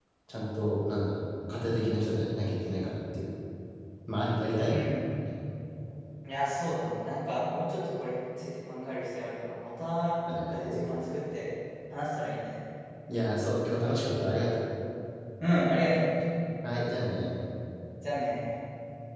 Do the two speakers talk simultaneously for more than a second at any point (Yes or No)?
No